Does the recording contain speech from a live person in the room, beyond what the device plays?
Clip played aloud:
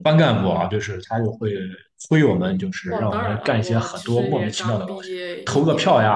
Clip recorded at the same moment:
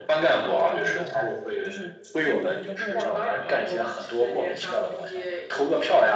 Yes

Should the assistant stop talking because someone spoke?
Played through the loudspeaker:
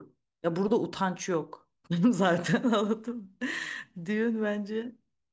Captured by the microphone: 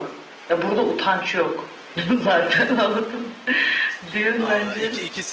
Yes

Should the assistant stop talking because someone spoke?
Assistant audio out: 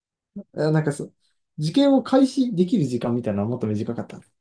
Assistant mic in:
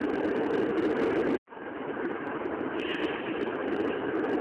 No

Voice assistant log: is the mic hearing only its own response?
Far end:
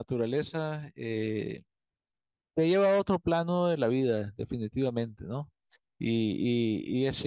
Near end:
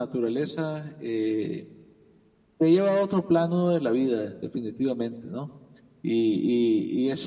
Yes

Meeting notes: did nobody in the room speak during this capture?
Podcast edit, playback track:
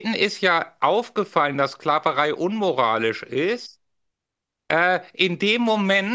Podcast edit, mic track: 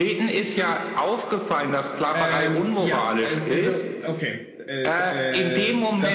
No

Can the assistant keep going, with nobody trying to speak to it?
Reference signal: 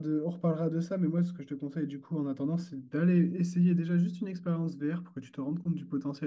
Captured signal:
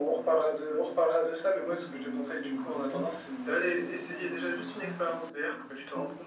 No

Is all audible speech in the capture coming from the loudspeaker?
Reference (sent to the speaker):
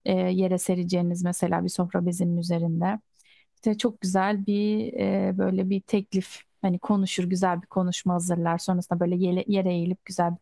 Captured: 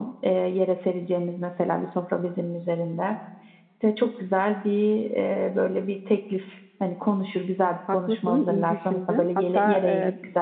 No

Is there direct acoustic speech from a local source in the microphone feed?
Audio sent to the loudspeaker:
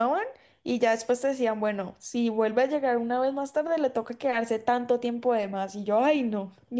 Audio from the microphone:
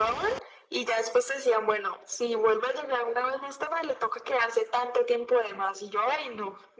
No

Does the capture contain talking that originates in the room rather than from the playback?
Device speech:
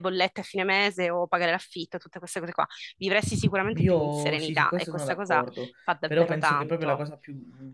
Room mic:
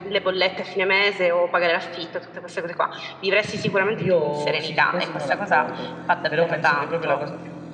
No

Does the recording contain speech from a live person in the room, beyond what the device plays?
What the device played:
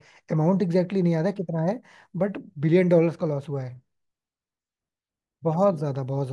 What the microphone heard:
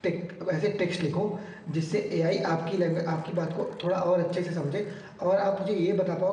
Yes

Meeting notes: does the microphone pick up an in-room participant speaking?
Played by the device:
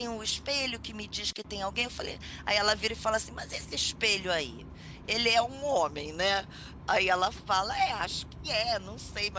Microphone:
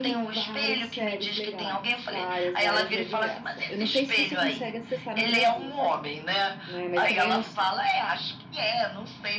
Yes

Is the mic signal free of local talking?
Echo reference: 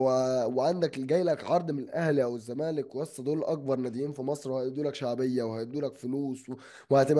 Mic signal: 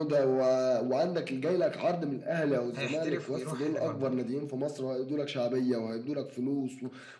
No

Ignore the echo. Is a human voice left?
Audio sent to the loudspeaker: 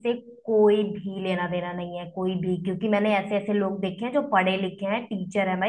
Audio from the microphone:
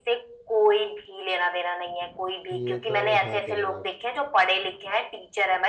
Yes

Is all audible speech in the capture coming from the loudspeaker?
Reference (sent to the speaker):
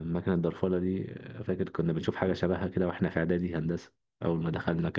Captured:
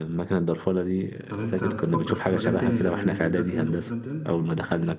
No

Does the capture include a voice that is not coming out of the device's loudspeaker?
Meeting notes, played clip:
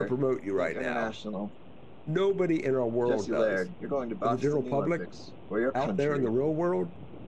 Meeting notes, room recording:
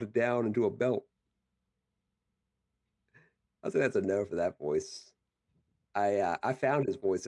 Yes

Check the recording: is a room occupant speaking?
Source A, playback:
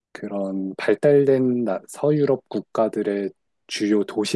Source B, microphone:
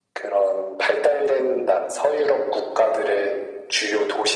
No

